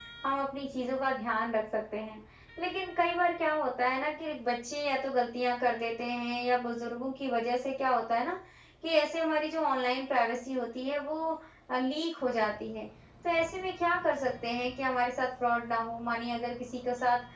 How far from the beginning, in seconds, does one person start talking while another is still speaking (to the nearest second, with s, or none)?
none